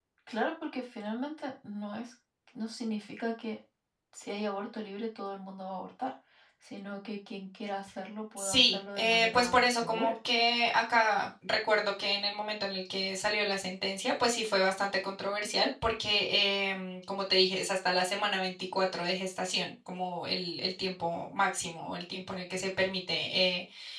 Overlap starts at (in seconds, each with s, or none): 8.4 s